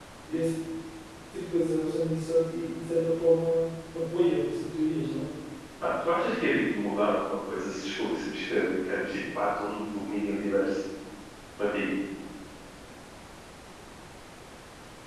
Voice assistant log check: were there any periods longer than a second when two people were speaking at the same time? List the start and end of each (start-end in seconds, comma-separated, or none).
none